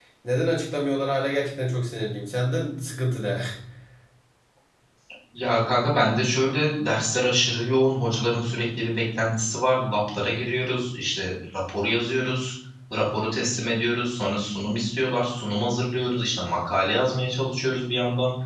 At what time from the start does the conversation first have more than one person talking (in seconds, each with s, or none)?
none